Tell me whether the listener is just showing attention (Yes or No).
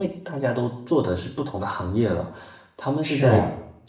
Yes